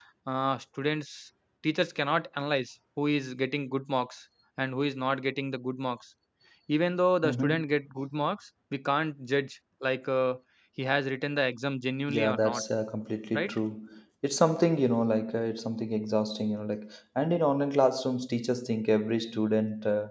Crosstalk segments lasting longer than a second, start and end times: none

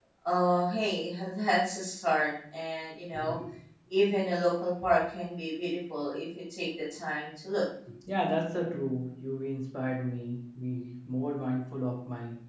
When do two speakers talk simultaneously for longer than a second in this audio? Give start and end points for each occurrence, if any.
none

